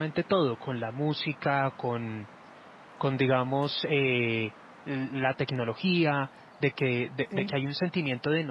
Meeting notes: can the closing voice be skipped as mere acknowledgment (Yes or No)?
Yes